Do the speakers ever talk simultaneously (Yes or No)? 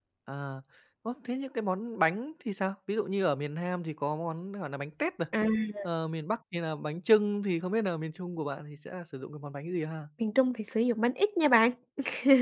No